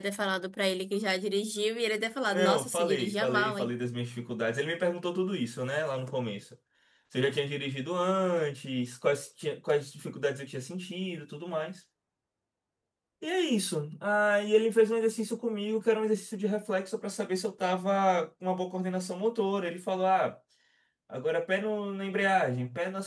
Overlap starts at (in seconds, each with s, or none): 2.3 s